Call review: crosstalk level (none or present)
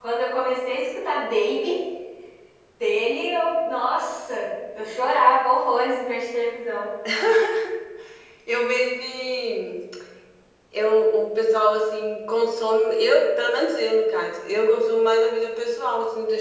none